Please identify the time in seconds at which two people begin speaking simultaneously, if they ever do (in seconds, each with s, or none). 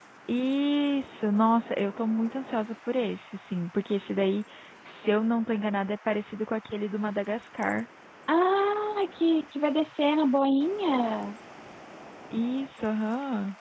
none